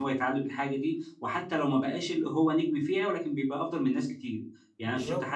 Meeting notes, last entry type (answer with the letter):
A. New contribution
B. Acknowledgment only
B